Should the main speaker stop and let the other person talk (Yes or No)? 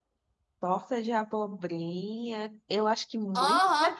Yes